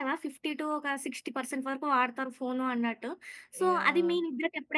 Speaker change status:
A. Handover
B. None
B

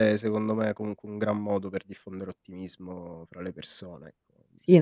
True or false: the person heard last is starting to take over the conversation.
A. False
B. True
B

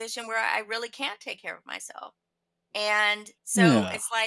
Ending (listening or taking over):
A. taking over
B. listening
B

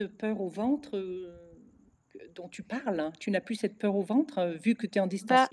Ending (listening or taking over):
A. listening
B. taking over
A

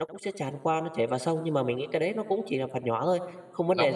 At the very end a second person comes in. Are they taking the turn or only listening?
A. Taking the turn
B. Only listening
A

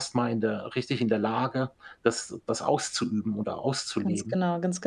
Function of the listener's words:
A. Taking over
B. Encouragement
A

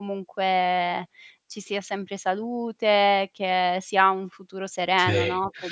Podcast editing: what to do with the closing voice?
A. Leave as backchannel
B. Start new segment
B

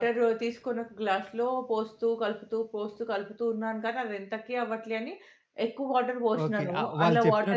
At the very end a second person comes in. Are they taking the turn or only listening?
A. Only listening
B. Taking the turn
B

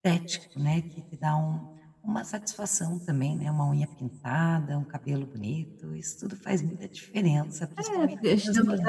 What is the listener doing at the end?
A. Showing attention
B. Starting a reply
B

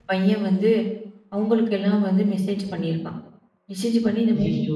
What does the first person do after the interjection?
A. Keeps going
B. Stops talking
A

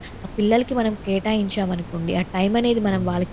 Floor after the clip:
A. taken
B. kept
B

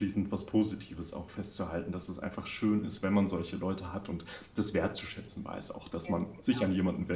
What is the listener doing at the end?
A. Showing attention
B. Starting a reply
A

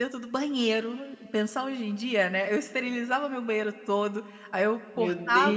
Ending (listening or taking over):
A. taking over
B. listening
B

